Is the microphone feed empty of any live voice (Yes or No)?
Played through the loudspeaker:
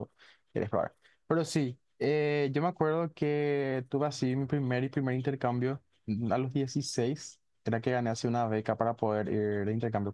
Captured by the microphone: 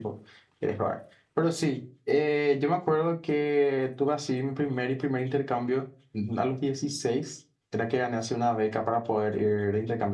Yes